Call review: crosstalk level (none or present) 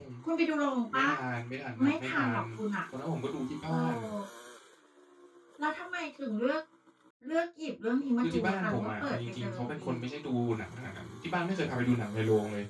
present